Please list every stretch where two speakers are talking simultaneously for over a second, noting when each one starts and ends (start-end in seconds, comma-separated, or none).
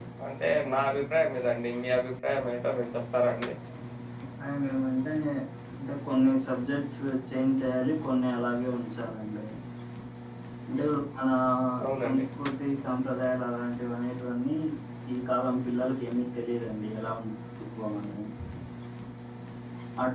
none